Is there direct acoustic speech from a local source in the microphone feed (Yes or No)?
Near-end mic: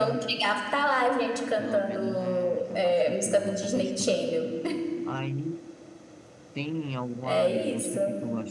Yes